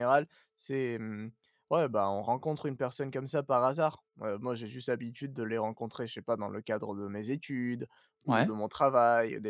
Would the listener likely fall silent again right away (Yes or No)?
Yes